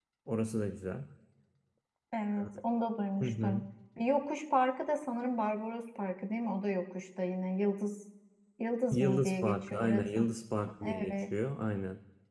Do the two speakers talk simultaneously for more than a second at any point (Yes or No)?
Yes